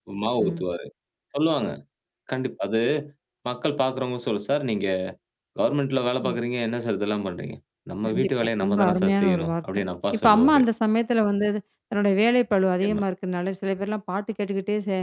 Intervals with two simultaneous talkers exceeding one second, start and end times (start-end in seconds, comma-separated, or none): 8.1-9.5